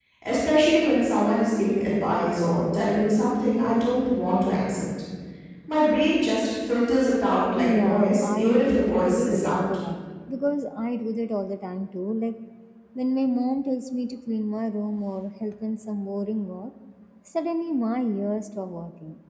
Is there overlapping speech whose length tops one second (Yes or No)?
Yes